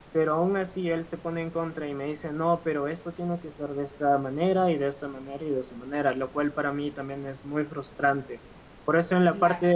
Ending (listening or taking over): listening